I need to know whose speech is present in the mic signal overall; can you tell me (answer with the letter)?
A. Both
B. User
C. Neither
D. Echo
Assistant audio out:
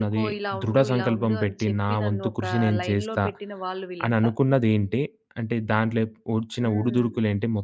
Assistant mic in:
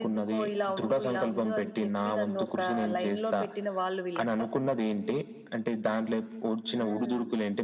D